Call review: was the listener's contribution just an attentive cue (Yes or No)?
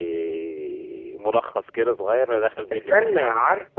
No